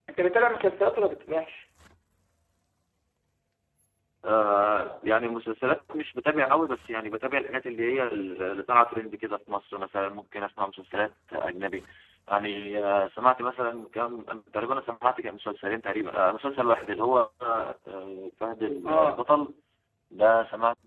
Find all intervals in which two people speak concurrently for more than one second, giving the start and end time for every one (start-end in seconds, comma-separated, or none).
none